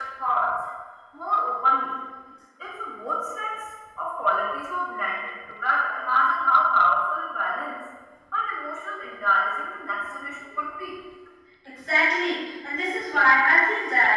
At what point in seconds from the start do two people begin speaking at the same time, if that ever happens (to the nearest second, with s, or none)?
none